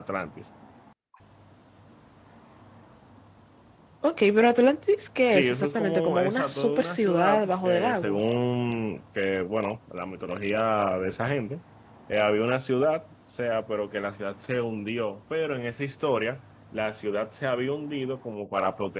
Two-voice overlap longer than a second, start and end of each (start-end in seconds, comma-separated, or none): 5.2-8.2